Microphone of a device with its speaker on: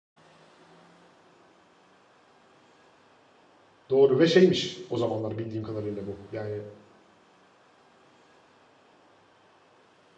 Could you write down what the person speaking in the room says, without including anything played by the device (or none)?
Doğru ve şeymiş o zamanlar bildiğim kadarıyla bu. Yani